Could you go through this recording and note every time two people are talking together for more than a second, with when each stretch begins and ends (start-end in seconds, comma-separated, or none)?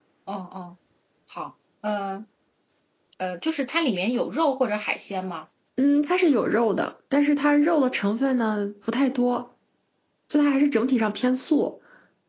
none